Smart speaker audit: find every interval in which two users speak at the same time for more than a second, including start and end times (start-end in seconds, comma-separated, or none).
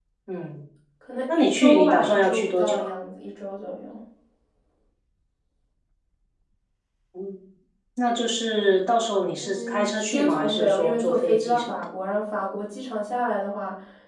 1.4-2.9, 9.4-11.8